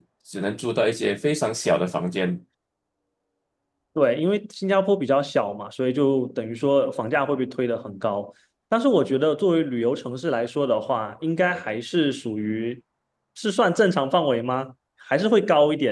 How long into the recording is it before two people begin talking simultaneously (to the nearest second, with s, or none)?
none